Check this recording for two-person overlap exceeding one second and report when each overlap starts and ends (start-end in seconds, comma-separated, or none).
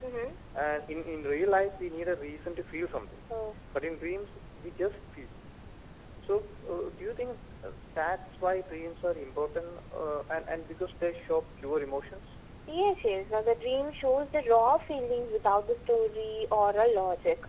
none